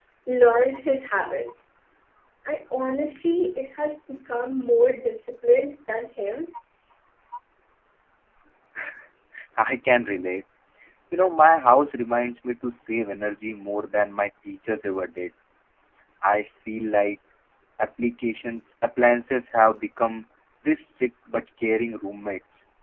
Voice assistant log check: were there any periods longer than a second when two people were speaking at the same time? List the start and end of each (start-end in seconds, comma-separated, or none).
none